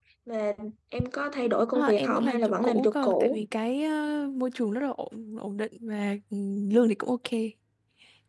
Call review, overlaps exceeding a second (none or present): present